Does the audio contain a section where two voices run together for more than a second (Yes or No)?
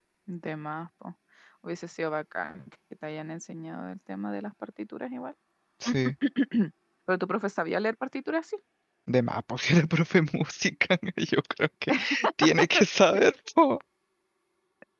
No